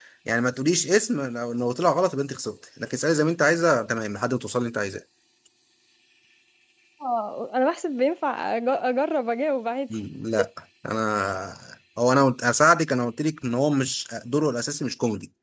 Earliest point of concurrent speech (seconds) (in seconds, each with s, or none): none